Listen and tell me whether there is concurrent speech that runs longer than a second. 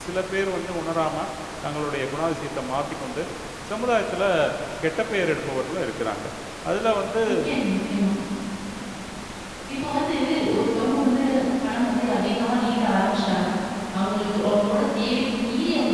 No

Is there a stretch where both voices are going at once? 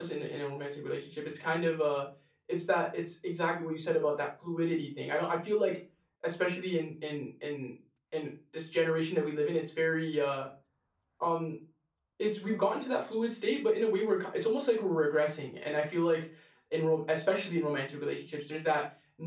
No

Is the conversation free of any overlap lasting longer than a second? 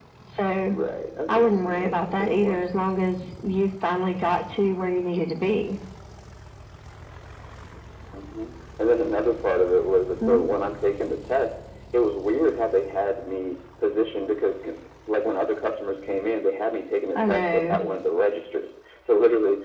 No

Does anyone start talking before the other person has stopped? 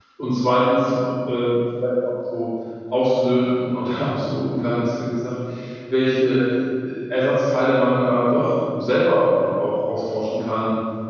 No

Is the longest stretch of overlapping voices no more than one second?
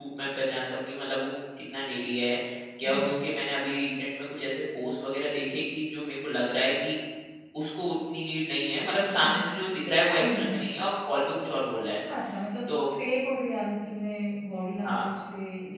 Yes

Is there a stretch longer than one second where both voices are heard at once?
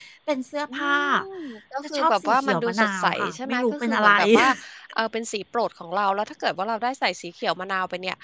Yes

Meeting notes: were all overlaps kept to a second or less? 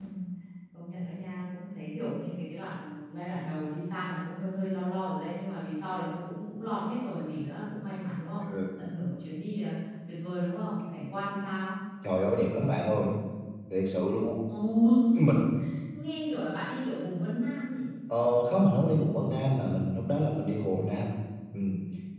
Yes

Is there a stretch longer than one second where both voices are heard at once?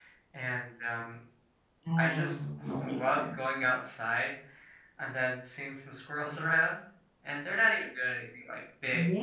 Yes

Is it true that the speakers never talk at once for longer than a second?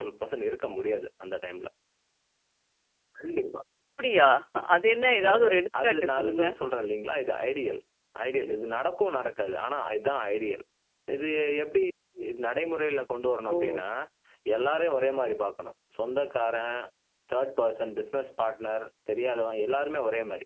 No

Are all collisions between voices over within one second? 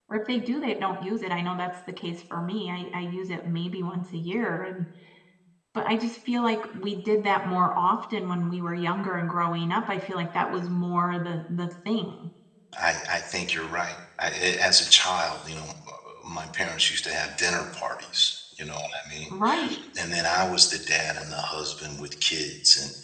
Yes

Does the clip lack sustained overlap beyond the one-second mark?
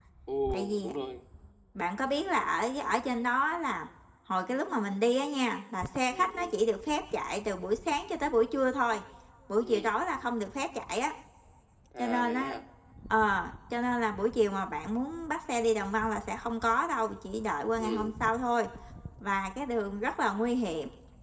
Yes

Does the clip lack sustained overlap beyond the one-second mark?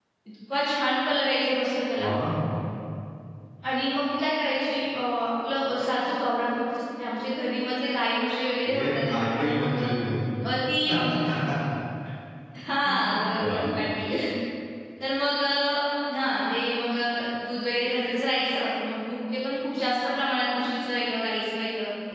No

